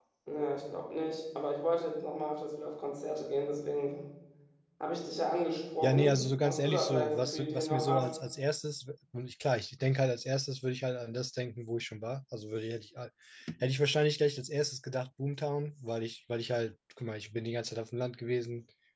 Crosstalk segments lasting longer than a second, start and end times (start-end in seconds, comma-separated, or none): 5.8-8.1